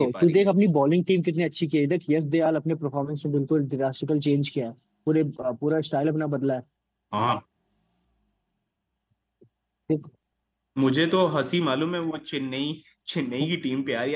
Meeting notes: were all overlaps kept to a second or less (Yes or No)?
Yes